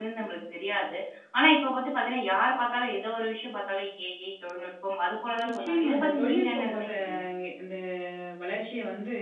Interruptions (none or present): present